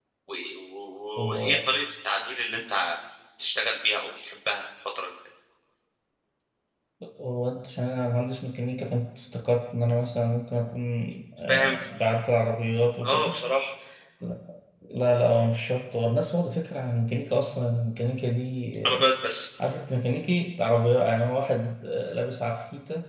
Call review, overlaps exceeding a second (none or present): none